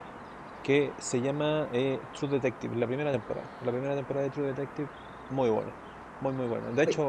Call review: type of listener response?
listening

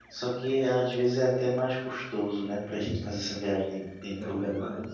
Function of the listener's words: taking over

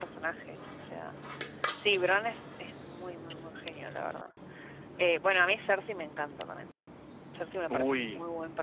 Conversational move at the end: taking over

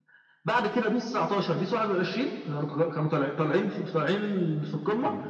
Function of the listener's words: taking over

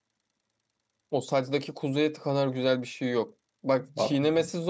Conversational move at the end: listening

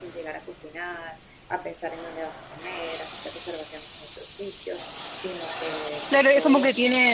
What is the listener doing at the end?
taking over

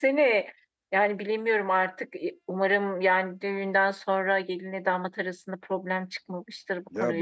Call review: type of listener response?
taking over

